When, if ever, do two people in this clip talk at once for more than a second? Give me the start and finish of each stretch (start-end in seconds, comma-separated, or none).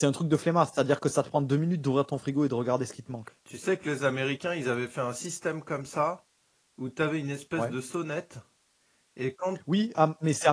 none